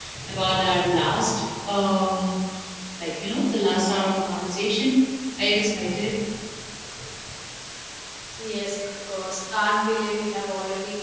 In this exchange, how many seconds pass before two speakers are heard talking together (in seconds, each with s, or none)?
none